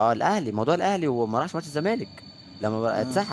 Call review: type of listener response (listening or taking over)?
listening